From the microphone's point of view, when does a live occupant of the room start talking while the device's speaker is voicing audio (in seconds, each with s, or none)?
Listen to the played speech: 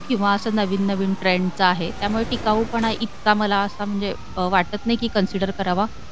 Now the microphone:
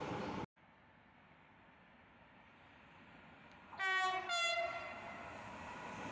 none